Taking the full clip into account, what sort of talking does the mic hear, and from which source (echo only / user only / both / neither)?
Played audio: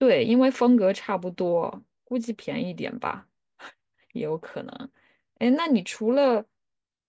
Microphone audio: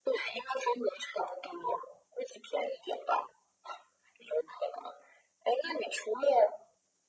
echo only